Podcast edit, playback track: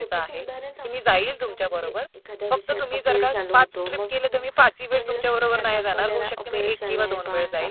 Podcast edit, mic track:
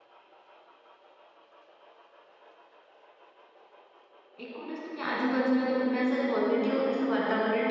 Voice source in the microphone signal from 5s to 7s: user only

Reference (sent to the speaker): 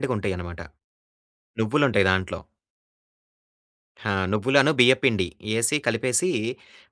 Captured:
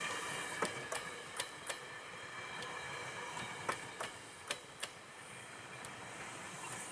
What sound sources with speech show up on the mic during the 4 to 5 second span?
neither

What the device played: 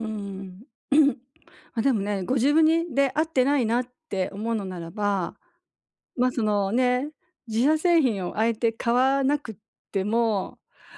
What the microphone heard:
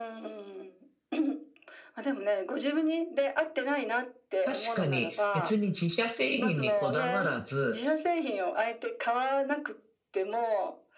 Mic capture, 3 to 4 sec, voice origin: echo only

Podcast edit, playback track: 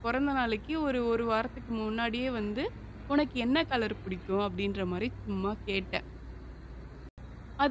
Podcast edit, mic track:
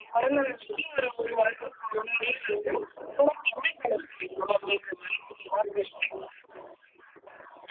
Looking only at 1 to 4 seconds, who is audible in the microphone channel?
echo only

